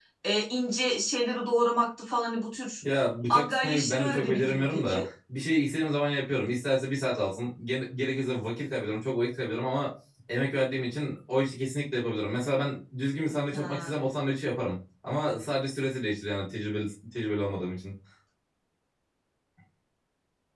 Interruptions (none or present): present